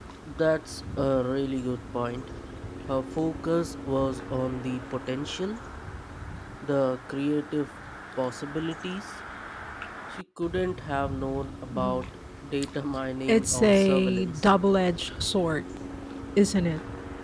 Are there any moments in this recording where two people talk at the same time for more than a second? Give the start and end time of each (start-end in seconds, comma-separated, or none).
13.3-14.5